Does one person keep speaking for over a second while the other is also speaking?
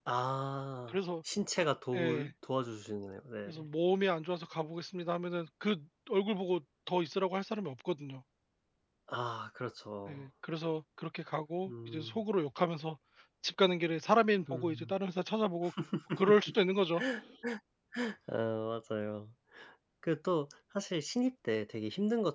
No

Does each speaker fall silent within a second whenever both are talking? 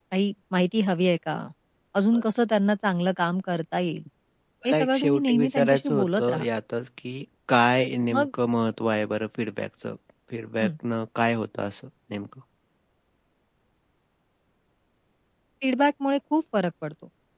No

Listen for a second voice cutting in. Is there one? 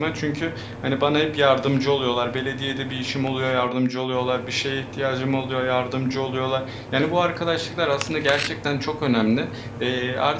No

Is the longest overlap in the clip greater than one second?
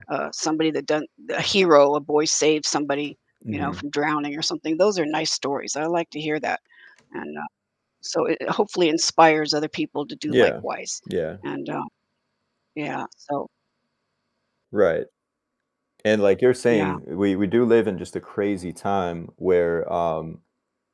No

